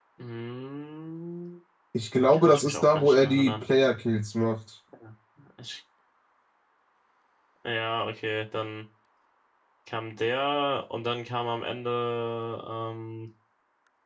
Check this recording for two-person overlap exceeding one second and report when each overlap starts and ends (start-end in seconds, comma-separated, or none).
2.3-3.6